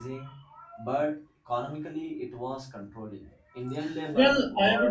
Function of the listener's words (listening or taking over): taking over